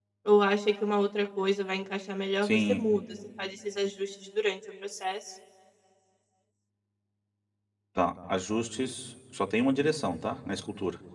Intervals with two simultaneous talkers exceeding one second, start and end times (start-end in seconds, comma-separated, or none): none